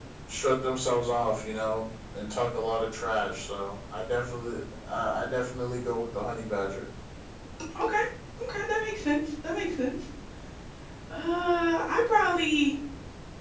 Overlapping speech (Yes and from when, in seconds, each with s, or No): No